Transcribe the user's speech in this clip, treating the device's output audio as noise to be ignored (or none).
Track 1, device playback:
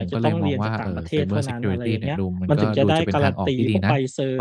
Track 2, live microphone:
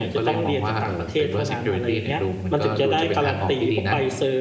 none